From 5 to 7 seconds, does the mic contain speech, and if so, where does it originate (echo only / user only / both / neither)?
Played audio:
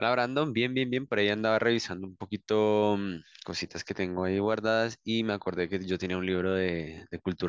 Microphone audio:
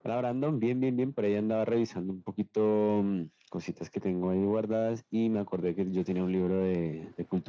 echo only